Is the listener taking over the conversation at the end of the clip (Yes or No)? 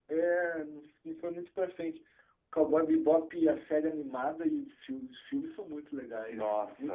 Yes